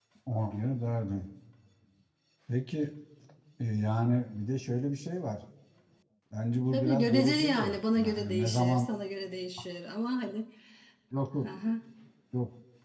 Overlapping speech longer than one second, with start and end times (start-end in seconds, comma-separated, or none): 6.7-8.9